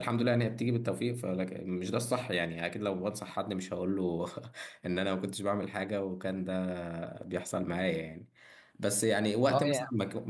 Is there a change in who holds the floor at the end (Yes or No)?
No